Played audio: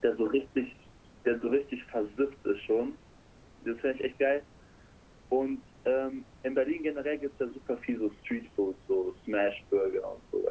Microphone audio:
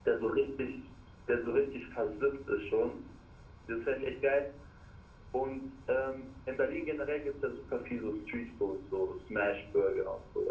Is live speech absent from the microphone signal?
Yes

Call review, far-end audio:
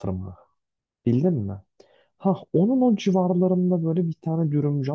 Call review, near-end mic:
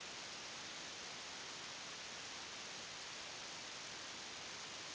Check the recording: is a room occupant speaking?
No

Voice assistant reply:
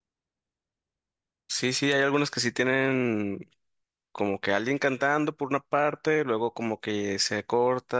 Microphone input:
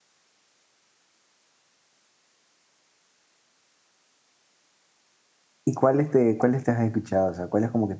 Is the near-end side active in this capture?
Yes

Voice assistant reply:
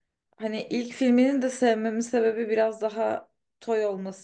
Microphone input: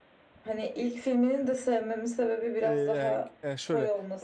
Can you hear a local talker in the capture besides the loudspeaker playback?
Yes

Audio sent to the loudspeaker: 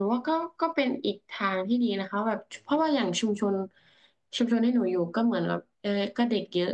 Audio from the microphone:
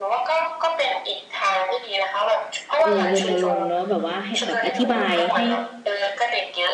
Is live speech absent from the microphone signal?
No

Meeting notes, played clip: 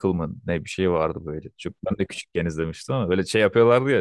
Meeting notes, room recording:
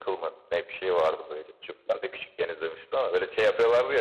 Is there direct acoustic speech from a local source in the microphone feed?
No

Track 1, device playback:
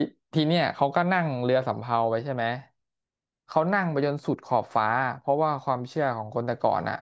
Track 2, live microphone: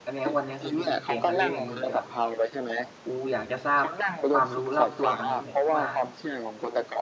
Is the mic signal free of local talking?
No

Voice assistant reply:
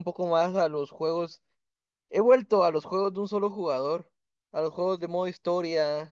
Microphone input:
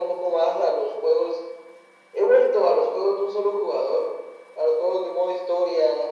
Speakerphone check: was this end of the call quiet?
Yes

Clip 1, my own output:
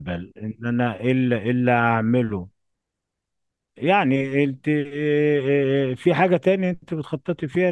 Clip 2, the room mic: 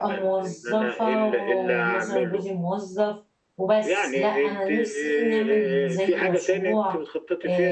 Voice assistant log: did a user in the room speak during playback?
Yes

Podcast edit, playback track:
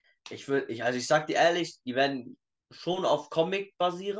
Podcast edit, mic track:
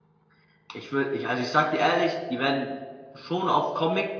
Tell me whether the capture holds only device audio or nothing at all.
Yes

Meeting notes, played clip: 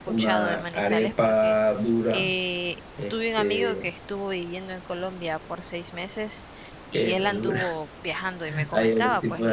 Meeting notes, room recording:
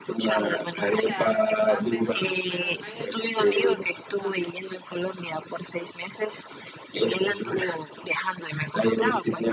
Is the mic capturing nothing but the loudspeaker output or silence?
No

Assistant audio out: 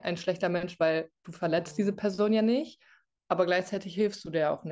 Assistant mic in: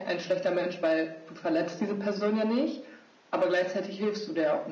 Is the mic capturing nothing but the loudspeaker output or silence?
Yes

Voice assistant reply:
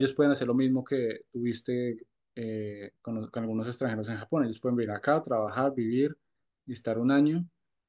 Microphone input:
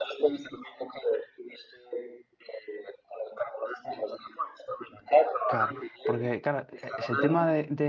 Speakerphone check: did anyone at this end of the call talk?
Yes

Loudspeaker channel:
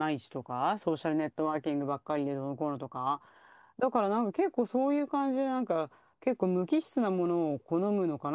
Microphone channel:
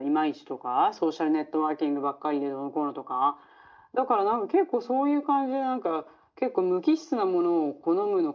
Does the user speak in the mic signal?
No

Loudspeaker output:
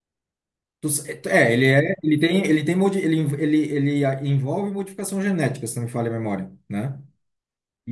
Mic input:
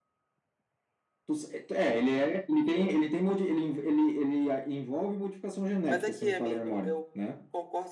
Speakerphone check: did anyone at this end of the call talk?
Yes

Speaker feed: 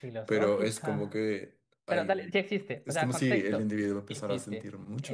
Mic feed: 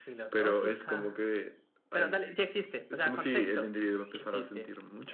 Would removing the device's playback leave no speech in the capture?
Yes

